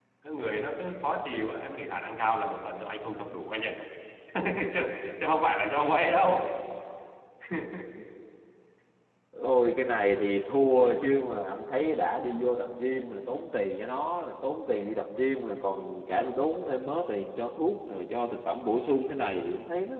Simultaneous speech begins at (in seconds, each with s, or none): none